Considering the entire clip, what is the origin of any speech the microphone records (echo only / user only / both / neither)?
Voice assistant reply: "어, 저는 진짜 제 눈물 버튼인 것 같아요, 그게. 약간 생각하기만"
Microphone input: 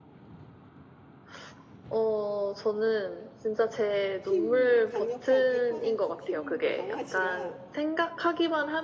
both